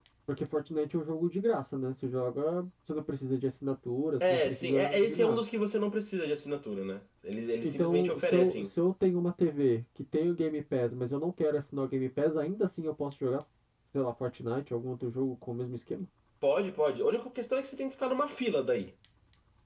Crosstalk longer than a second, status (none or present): present